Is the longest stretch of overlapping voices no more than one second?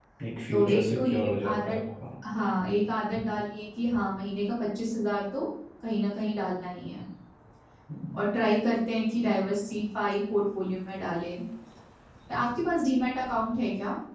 No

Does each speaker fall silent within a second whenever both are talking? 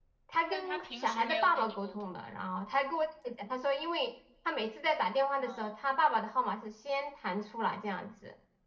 No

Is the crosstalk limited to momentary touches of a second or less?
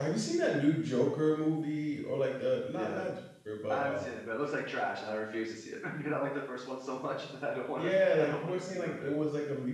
No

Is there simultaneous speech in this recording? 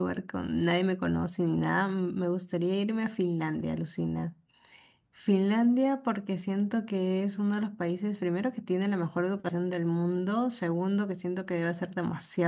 No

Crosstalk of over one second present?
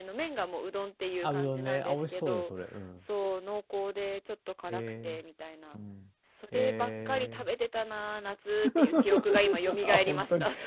Yes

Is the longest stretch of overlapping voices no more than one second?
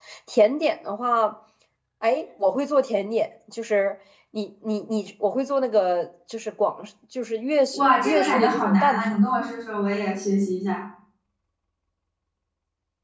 No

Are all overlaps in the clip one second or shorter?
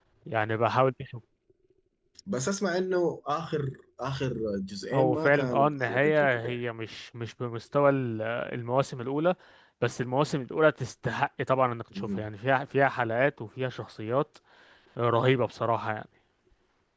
No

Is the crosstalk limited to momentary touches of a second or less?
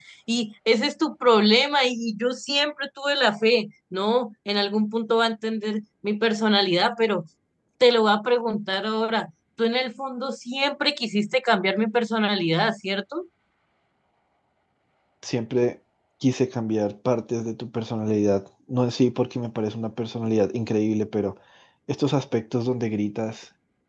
Yes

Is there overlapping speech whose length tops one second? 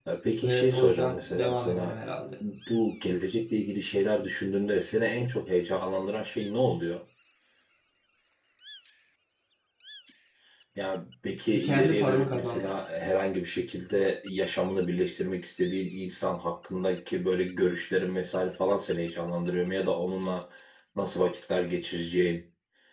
Yes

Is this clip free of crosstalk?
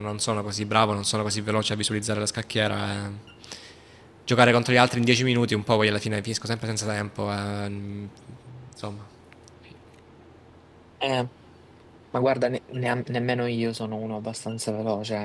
Yes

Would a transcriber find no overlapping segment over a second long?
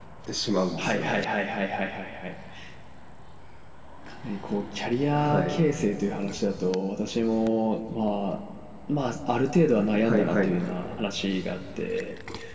Yes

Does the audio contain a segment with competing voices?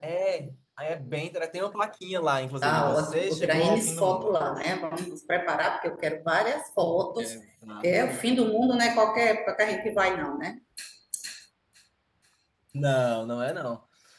Yes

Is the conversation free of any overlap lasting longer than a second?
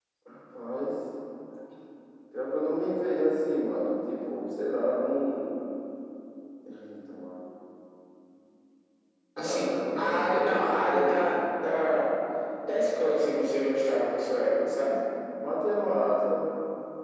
No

